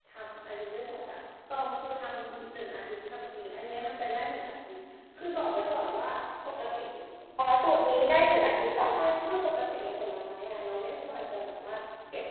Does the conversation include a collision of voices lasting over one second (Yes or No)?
No